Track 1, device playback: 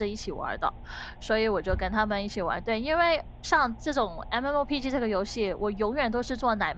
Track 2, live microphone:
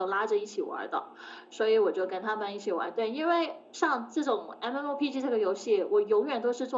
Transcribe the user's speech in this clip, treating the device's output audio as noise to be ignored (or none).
none